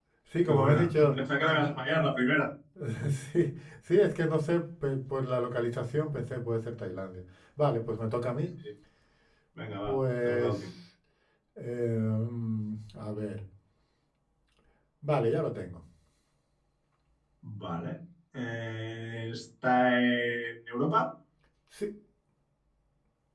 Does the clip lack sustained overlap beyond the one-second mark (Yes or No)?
No